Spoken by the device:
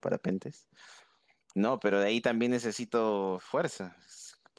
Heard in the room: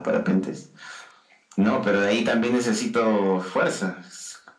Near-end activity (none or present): none